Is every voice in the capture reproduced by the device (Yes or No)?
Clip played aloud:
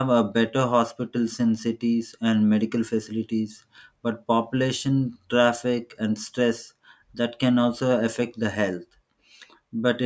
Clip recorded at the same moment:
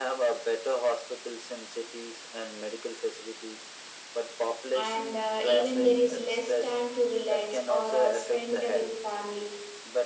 No